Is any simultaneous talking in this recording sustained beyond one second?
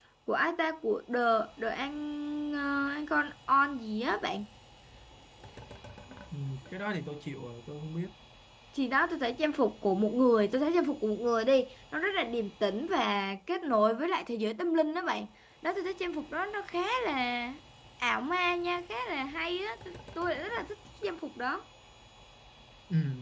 No

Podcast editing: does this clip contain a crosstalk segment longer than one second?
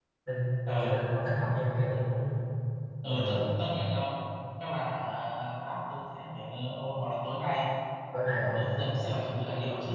No

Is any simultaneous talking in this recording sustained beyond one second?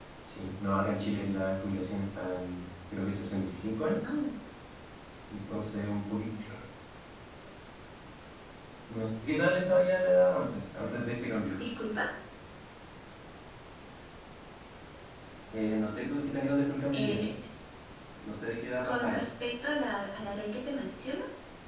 No

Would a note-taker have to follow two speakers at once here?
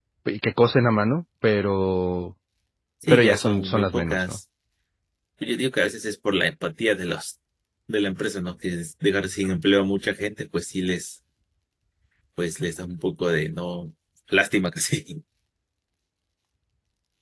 Yes, from 3.1 s

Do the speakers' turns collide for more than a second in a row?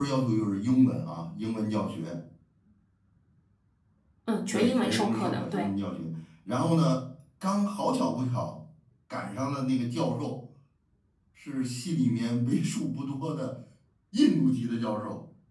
Yes, from 4.5 s

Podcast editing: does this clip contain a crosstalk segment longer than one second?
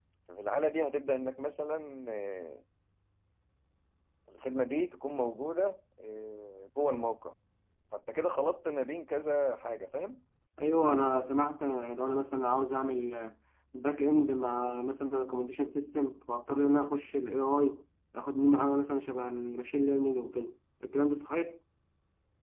No

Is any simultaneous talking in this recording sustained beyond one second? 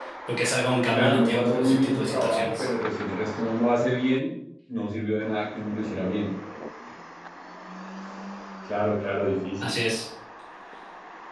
Yes, from 0.9 s

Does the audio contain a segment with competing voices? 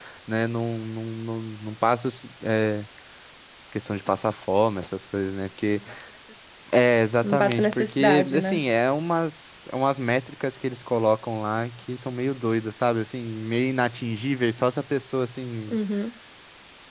Yes, from 7.2 s

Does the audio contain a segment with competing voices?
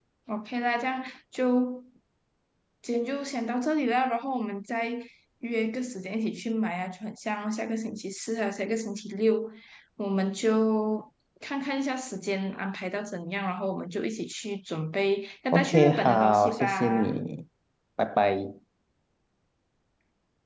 Yes, from 15.5 s

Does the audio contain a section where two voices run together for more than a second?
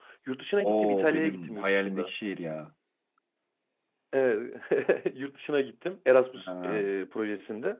Yes, from 0.6 s

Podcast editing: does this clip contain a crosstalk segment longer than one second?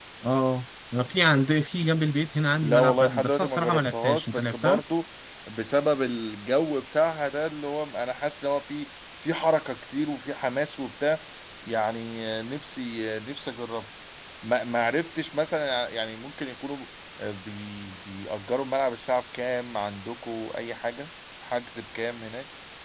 Yes, from 2.6 s

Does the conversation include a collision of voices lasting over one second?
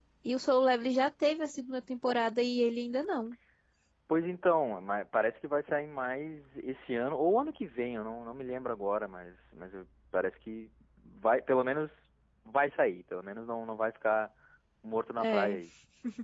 No

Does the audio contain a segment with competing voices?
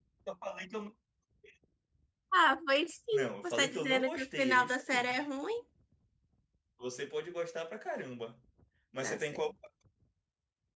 Yes, from 3.1 s

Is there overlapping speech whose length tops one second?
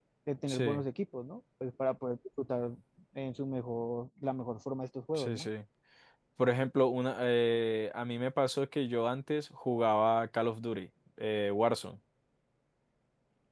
No

